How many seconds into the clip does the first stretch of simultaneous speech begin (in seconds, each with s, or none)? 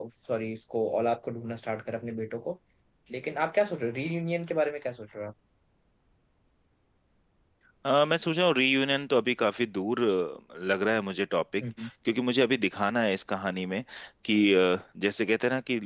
none